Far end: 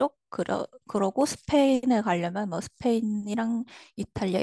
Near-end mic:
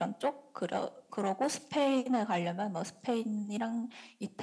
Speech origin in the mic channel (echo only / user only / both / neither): echo only